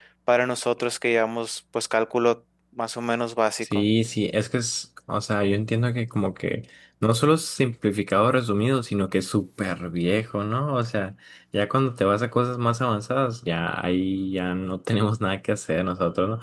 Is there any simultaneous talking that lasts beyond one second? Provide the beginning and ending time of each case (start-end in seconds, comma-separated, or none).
none